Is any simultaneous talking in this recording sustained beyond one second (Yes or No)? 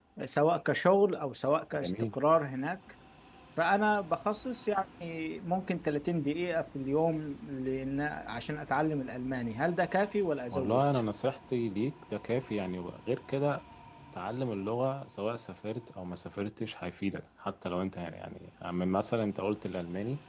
No